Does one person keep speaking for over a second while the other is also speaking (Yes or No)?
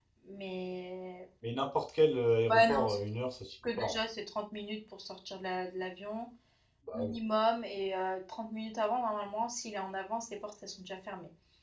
No